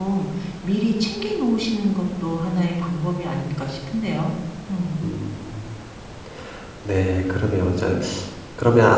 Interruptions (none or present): none